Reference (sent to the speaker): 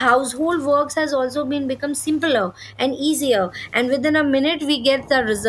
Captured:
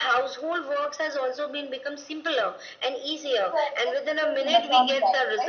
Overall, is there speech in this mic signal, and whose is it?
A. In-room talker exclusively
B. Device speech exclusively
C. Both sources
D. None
C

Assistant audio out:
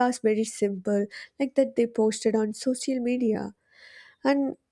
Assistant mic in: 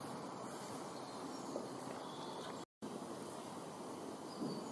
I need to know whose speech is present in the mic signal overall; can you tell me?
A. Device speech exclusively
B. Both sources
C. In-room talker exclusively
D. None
D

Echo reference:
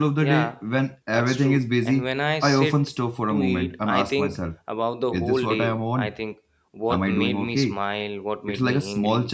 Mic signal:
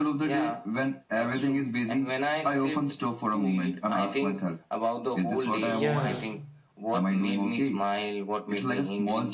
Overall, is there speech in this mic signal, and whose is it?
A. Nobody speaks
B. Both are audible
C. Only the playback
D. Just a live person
B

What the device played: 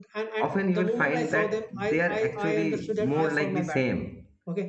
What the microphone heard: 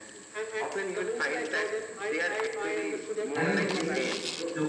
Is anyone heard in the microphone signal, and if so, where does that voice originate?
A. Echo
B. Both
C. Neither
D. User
B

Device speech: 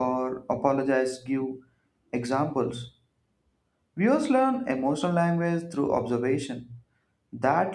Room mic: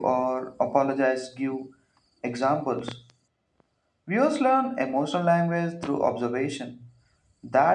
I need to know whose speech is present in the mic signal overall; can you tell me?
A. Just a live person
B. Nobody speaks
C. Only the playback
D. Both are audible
C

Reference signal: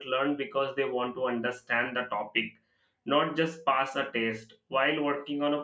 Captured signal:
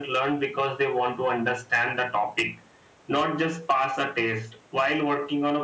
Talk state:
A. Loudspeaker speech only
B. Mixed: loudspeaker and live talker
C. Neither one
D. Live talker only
A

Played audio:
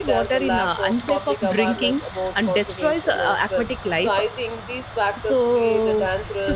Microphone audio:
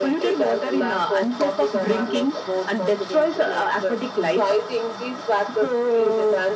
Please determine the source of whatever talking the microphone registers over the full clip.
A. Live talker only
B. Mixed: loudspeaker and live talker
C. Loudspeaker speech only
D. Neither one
C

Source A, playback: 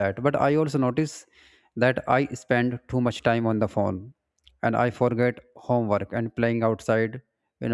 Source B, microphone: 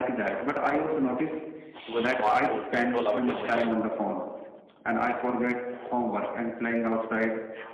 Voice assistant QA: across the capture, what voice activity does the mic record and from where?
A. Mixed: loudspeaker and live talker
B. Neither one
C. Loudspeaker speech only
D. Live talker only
A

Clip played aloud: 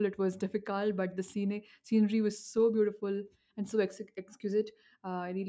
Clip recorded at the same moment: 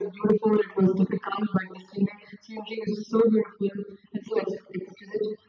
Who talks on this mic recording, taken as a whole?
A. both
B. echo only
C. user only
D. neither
B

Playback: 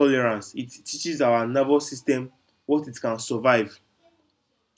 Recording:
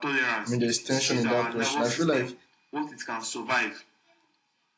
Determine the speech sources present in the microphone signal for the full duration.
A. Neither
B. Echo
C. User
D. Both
D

